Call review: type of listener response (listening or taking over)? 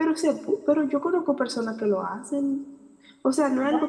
listening